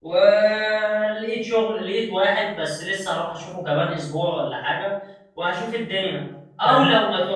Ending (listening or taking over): listening